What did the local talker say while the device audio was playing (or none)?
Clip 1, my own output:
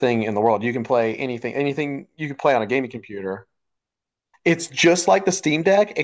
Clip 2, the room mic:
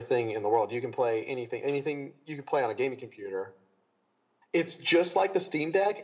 none